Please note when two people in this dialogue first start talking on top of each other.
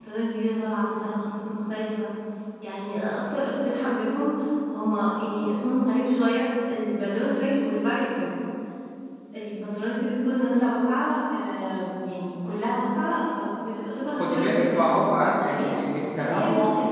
14.1 s

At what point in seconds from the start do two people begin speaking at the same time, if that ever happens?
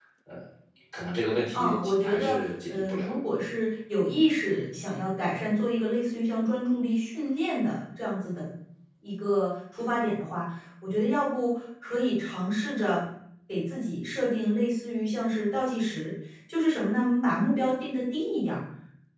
1.5 s

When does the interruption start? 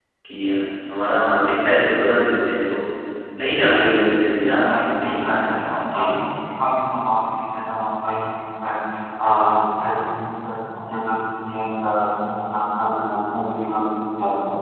4.3 s

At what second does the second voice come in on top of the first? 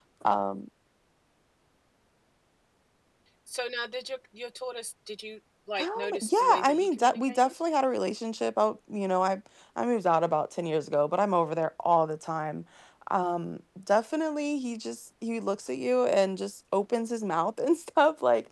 5.8 s

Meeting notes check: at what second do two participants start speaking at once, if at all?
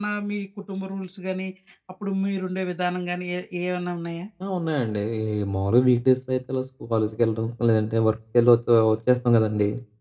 none

